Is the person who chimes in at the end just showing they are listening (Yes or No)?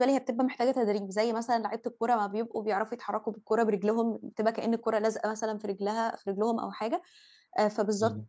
Yes